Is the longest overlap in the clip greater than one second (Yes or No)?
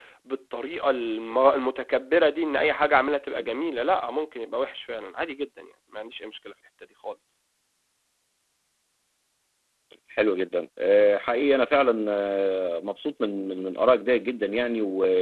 No